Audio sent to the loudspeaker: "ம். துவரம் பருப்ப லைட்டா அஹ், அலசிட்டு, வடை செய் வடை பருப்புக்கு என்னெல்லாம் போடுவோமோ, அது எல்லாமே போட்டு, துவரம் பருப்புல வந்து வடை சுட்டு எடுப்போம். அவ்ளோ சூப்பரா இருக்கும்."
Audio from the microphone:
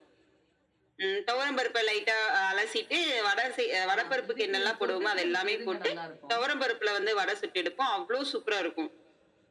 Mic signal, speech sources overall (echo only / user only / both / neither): both